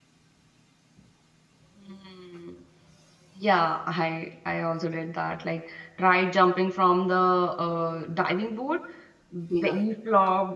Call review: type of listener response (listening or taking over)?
listening